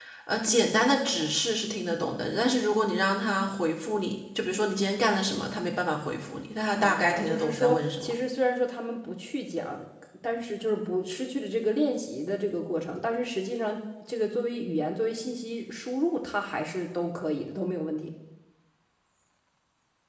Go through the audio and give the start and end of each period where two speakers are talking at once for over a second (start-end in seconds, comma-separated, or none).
6.8-8.1